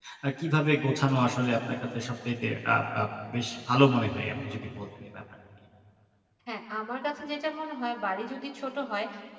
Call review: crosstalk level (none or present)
none